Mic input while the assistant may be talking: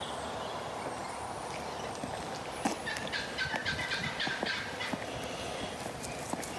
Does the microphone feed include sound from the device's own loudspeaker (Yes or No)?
No